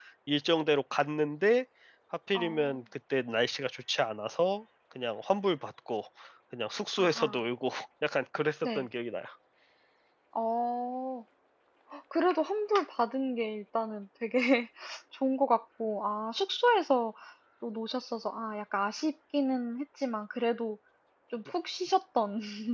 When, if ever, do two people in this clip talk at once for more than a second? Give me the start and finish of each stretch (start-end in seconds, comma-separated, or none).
none